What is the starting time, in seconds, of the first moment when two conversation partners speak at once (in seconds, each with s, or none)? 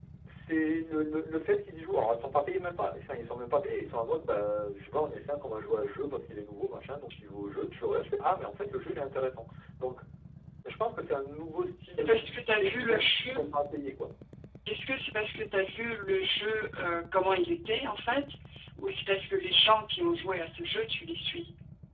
12.0 s